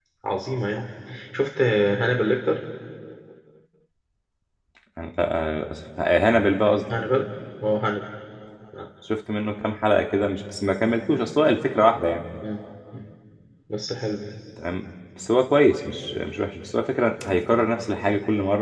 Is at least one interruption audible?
No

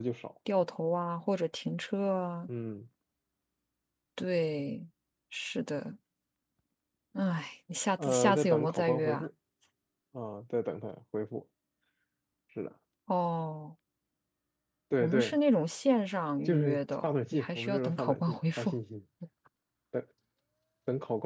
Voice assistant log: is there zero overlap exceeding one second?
No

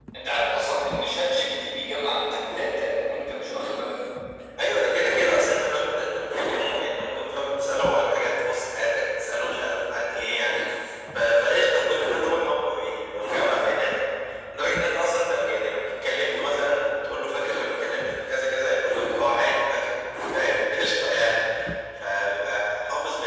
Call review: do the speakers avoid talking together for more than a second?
Yes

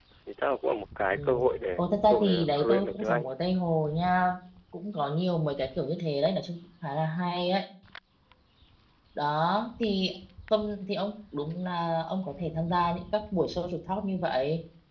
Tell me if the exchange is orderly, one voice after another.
No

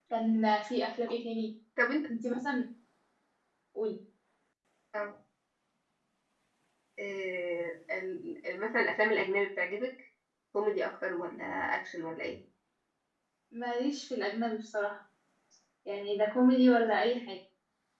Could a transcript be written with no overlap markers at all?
Yes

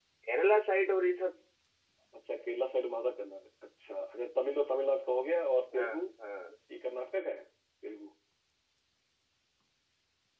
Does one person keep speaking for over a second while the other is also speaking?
No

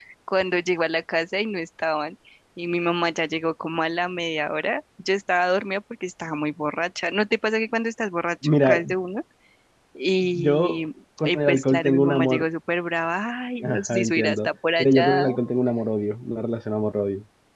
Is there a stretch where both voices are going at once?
Yes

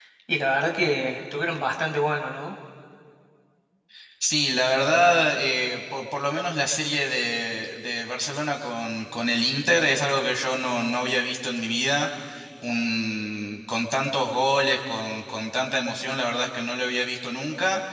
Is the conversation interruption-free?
Yes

